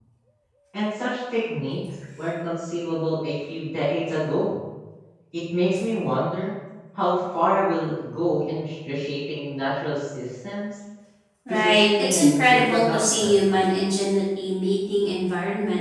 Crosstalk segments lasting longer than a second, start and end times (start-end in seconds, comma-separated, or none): 11.5-13.4